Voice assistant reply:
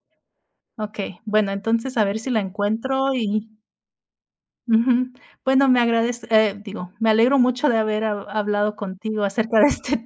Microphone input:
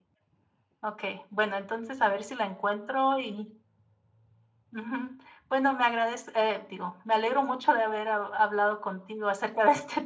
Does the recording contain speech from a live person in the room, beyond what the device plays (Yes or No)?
No